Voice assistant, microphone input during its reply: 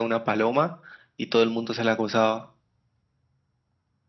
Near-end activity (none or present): none